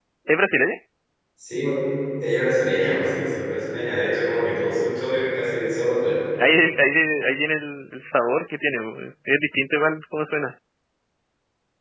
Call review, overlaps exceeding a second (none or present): none